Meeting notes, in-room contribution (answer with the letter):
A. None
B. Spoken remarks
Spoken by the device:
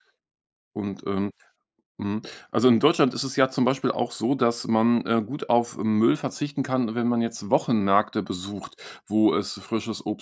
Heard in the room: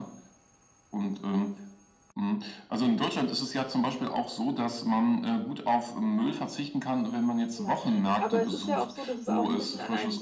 B